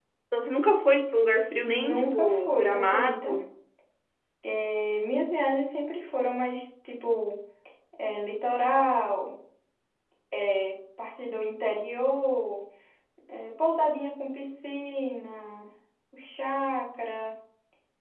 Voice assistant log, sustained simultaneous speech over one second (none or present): present